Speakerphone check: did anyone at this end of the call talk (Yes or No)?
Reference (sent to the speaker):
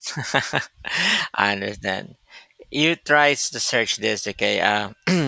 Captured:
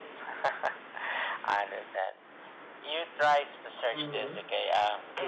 Yes